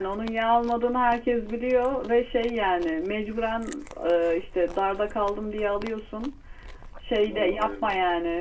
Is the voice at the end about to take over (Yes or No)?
No